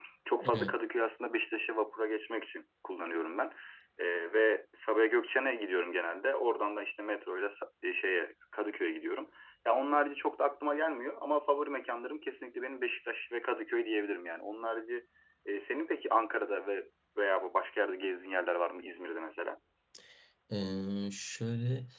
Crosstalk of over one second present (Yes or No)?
No